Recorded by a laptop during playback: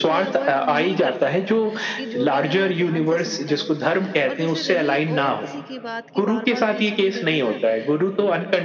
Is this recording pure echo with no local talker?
No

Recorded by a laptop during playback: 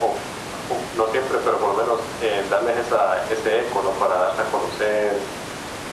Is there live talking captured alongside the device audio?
No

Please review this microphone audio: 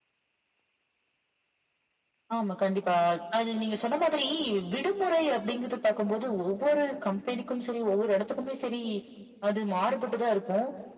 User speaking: No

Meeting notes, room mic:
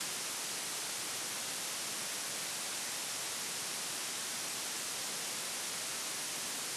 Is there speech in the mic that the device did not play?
No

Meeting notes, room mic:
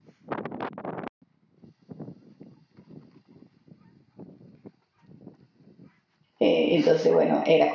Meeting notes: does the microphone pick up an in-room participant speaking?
Yes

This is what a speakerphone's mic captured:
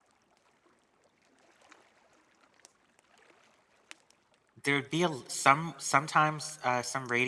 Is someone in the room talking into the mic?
Yes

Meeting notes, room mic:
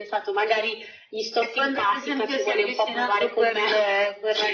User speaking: No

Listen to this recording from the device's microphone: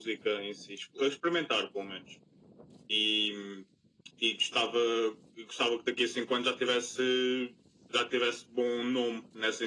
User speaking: No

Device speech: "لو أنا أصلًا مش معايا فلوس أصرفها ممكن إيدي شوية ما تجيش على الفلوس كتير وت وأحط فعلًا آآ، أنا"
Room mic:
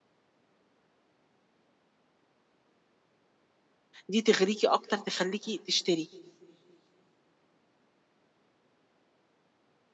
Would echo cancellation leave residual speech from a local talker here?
Yes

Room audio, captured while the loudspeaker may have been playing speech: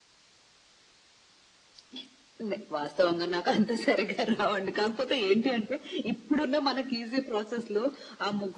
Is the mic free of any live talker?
Yes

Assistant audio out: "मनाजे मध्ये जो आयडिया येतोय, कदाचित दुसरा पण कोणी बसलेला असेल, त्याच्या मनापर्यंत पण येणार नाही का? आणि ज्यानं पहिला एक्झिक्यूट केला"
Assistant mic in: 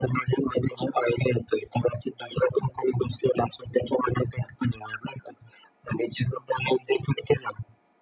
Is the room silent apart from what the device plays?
Yes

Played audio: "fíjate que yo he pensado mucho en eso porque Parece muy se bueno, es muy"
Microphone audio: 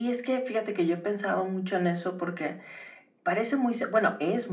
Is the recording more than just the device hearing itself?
No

